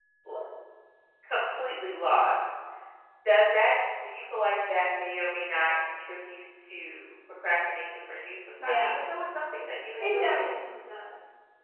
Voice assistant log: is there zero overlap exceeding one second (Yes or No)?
Yes